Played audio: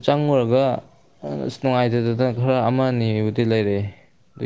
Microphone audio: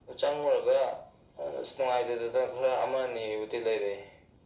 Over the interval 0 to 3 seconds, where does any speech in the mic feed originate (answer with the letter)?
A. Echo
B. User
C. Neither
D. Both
A